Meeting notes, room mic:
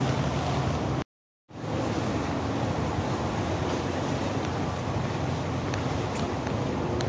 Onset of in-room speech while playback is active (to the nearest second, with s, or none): none